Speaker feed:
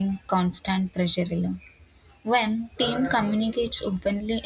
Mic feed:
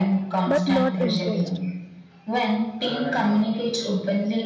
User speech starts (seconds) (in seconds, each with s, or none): 0.5 s